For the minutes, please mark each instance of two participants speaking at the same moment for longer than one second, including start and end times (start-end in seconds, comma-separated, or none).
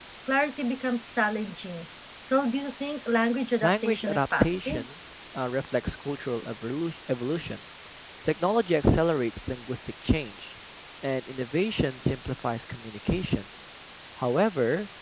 3.6-4.8